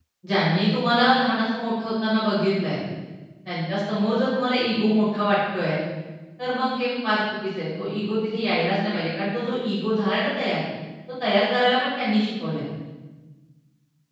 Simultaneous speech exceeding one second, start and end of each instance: none

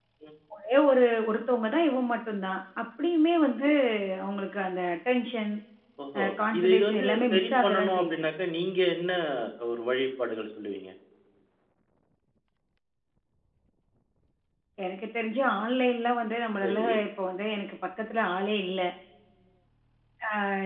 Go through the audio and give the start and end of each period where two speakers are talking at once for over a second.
6.2-8.2

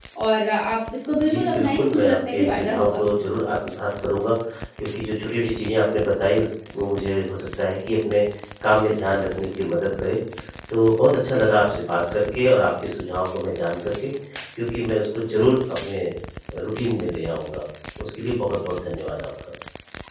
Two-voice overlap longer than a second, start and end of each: 1.2-3.0

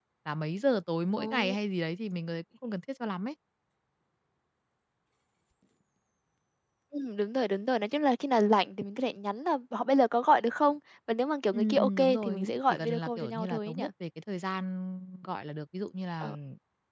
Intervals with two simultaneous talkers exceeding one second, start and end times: 11.5-13.8

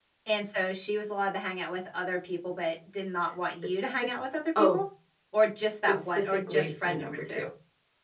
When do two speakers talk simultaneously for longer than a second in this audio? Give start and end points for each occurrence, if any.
5.7-7.5

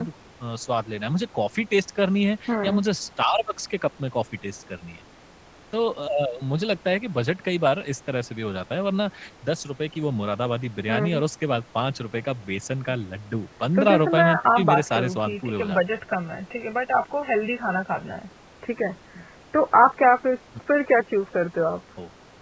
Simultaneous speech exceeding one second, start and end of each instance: 13.8-15.8

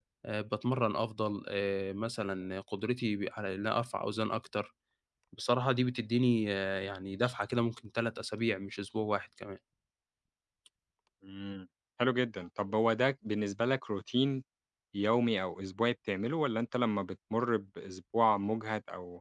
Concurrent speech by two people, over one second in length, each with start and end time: none

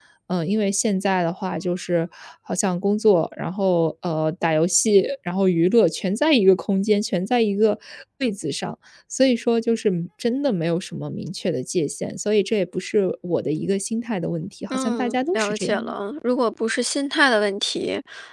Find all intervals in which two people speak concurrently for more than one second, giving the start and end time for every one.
14.7-15.9

